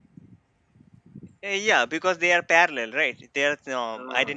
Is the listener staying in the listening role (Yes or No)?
No